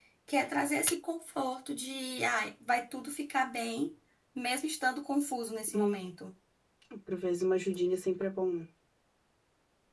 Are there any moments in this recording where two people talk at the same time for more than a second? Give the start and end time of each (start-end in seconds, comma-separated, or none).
none